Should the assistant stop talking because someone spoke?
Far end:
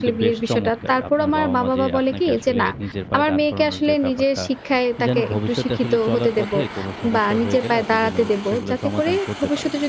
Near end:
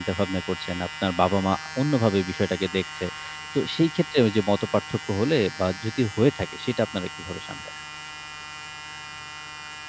Yes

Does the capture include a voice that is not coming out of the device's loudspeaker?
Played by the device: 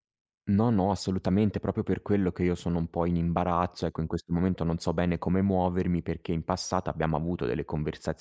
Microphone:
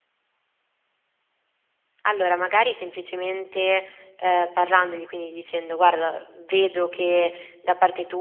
Yes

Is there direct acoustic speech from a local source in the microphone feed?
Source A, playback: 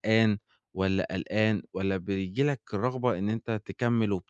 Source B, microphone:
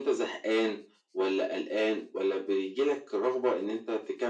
No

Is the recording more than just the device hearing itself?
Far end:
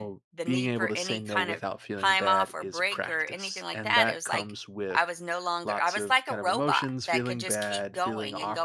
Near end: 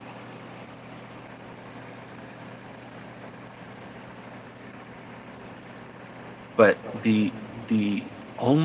Yes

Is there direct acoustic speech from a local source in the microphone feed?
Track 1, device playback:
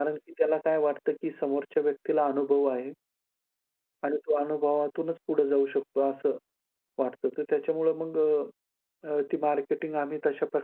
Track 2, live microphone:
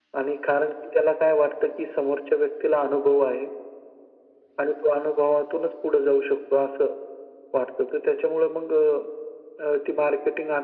No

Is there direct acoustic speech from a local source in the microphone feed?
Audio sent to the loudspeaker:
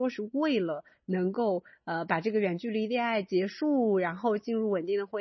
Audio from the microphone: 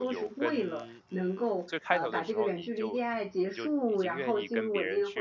Yes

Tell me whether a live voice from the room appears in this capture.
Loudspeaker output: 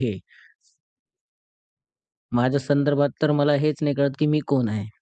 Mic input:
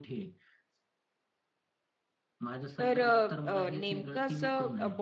Yes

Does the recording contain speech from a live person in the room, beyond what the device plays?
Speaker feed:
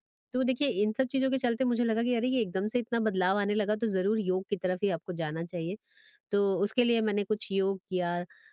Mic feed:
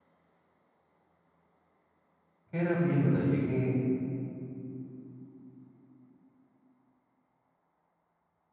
Yes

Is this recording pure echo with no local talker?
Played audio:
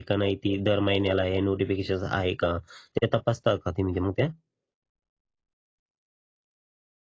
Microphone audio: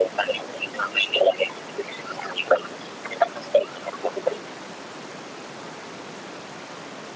Yes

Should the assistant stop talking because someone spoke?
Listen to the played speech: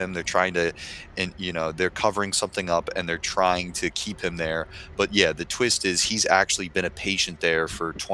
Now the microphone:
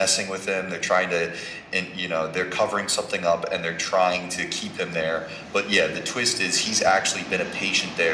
No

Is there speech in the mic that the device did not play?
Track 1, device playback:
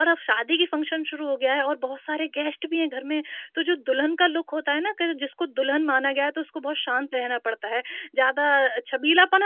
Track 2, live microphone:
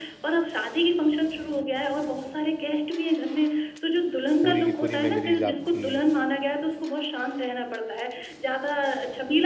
Yes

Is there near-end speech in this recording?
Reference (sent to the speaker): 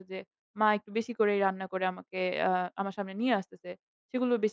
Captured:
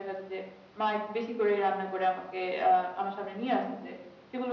No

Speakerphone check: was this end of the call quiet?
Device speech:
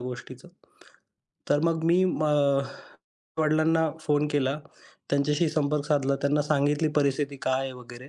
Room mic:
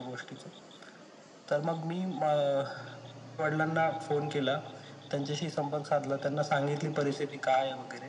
Yes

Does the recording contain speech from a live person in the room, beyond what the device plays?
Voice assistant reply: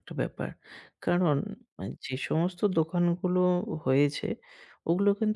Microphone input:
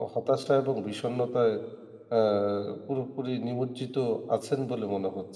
Yes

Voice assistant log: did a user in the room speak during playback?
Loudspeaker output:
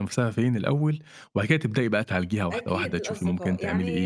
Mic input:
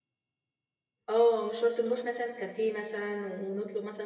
Yes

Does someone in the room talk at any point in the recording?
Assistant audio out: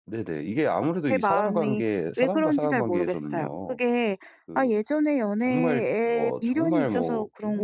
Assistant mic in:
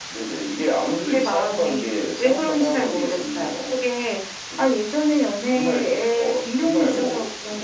No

